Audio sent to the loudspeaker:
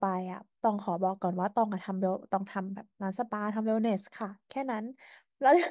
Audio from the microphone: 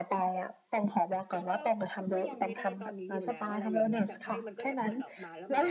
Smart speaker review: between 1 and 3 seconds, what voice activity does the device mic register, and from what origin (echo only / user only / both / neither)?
both